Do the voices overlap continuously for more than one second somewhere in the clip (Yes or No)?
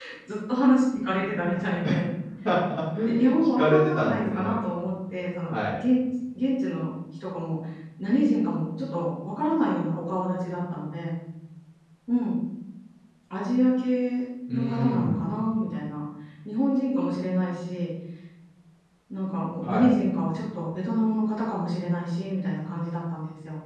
Yes